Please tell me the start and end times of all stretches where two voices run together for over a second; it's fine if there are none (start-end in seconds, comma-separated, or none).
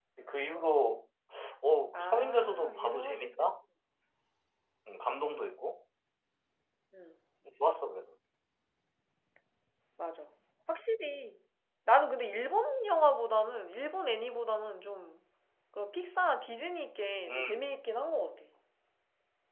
1.9-3.5